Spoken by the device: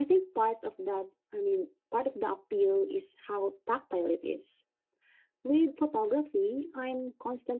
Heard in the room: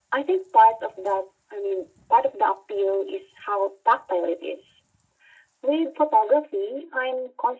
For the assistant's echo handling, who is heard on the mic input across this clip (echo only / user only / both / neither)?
echo only